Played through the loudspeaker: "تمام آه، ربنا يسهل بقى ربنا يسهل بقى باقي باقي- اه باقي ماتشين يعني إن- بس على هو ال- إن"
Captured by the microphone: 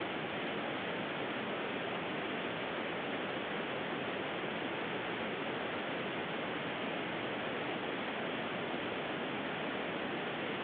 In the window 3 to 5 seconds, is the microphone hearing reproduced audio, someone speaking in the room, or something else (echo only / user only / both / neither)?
neither